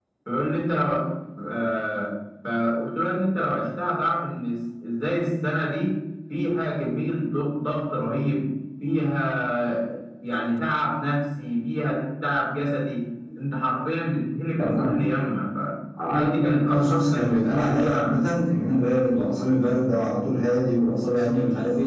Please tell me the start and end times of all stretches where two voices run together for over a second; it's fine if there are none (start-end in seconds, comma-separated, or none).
16.1-18.2